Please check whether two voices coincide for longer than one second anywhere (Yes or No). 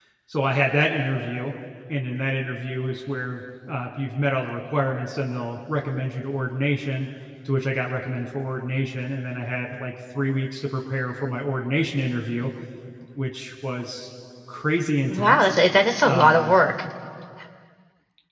No